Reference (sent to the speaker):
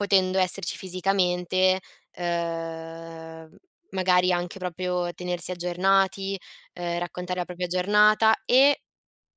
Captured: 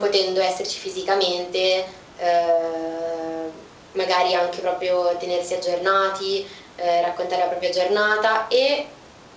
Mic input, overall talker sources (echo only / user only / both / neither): echo only